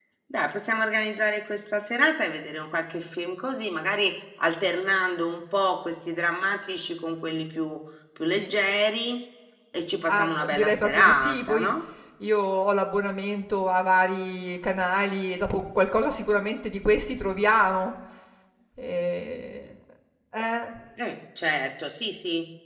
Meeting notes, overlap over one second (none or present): present